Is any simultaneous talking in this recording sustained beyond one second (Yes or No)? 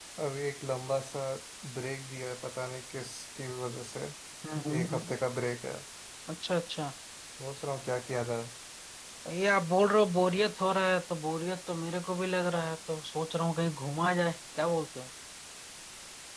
No